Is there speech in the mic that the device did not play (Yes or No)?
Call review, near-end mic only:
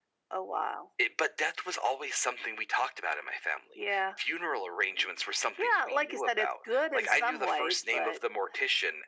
No